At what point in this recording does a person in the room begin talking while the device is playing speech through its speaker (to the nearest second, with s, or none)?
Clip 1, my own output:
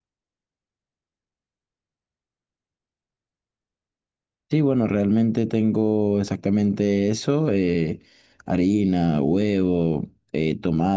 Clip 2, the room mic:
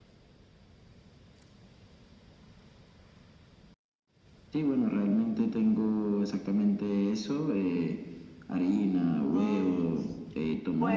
9 s